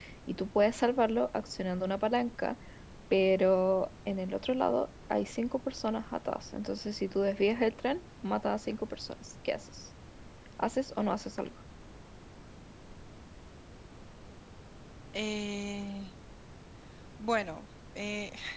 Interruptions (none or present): none